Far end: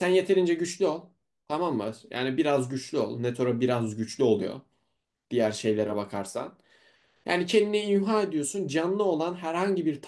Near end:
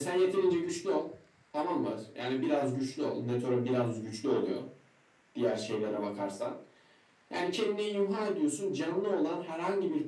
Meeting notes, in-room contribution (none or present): none